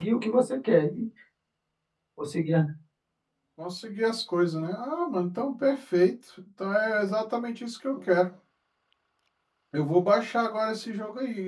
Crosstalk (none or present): none